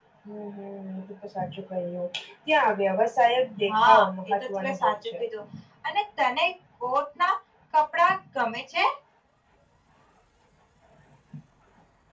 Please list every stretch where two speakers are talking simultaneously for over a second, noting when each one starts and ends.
3.7-5.1

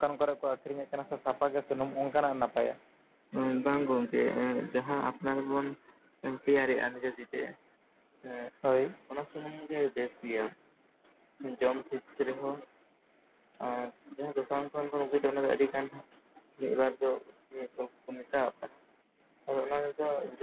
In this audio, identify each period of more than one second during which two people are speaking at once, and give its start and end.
none

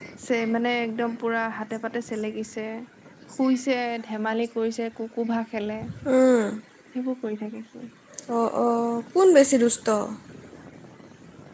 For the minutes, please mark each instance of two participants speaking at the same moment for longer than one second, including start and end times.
none

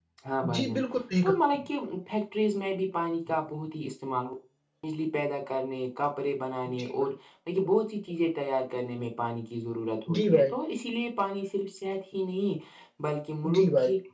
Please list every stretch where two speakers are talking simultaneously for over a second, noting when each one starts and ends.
none

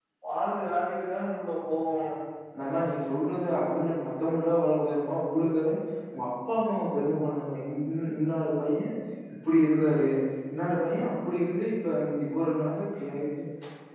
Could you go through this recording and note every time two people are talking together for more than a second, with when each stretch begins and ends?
none

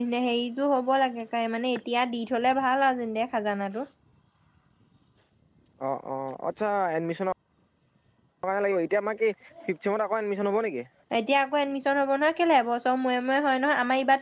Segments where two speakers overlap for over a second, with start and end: none

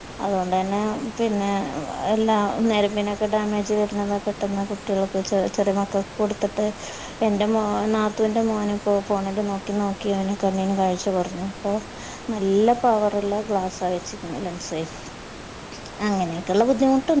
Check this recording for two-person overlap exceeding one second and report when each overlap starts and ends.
none

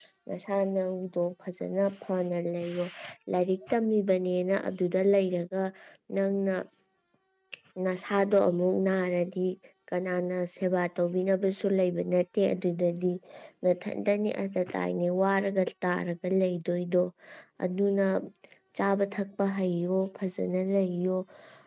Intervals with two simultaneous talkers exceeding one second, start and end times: none

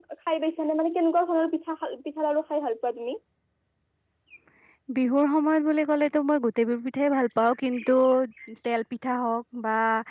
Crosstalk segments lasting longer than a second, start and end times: none

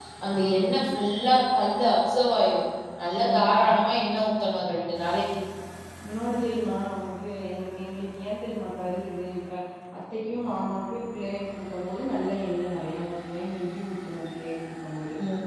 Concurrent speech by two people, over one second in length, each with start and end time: none

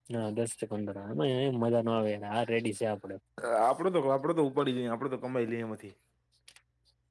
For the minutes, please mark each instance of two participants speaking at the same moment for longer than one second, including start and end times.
none

